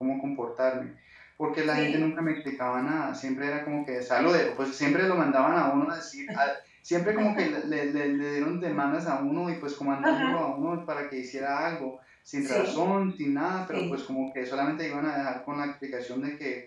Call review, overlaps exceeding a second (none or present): none